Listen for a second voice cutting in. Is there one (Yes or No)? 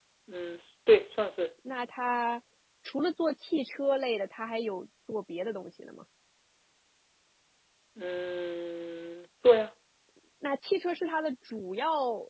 No